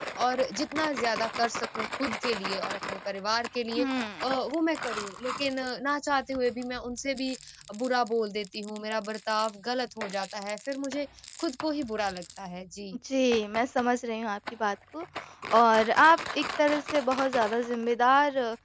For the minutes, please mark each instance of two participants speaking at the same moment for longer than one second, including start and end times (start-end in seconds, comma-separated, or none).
none